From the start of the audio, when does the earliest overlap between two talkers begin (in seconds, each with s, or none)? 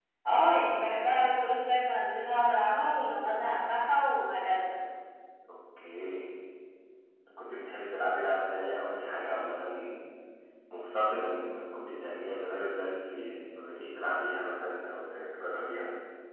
none